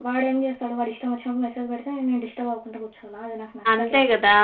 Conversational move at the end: taking over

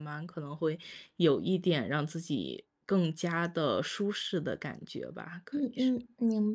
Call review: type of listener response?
taking over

